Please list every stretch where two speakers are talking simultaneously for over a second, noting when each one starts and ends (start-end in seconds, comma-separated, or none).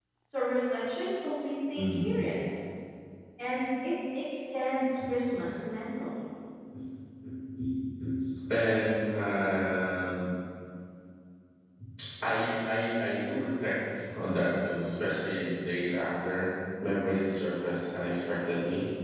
none